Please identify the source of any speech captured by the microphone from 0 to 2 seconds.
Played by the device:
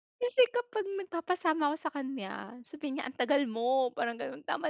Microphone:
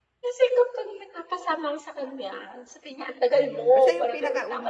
echo only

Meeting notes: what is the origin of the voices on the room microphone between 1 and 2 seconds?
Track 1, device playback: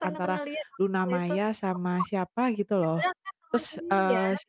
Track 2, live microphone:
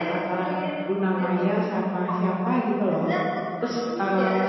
echo only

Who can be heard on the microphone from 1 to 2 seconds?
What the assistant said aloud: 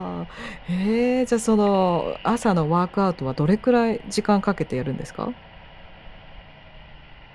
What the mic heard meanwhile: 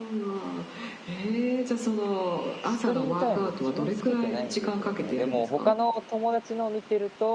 echo only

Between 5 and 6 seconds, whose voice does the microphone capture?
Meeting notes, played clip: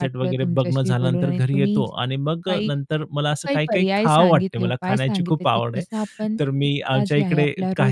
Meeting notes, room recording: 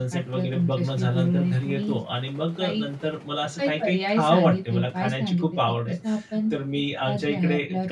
echo only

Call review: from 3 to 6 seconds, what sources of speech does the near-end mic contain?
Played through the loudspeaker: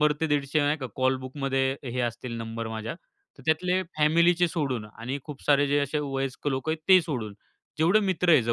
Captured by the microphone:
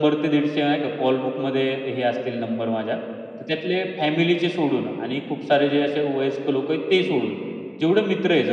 echo only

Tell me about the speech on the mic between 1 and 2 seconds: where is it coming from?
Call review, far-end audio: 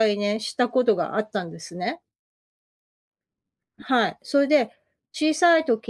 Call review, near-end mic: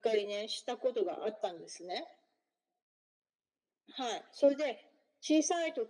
echo only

